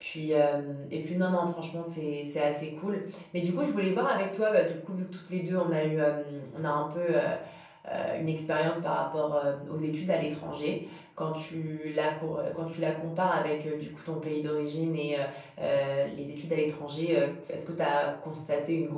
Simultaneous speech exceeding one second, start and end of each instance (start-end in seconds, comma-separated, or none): none